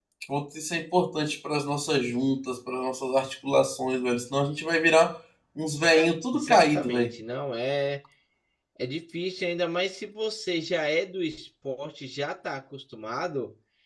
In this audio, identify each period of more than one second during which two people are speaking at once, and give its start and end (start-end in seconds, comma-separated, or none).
5.9-7.1